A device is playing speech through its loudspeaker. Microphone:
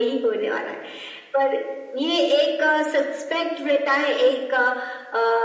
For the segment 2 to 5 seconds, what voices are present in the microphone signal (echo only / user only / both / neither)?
echo only